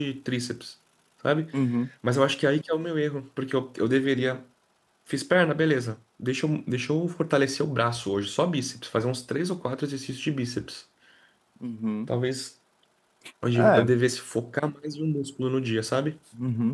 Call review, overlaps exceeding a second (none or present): none